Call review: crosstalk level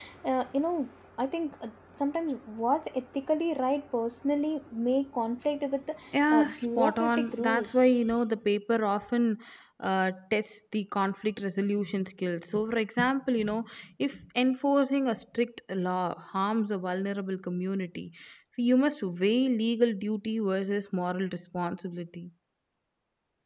present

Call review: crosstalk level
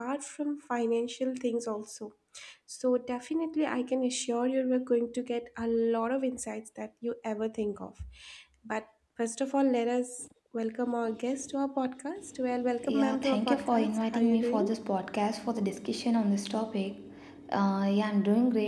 present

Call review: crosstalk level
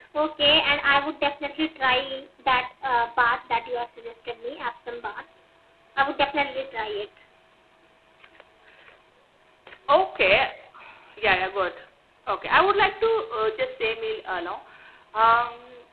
none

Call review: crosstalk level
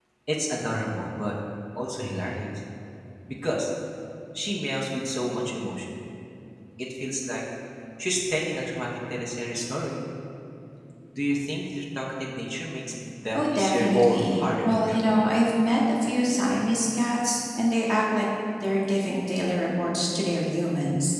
present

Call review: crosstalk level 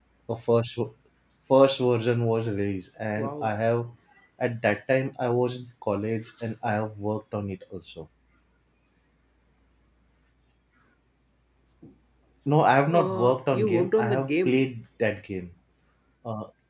present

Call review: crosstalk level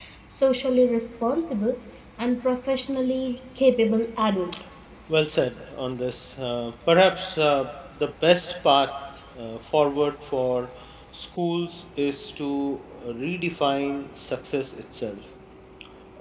none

